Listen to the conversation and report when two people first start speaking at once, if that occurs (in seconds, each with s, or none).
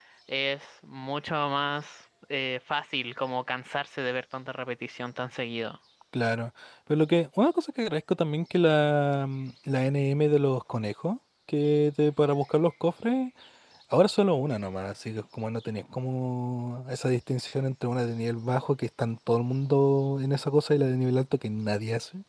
none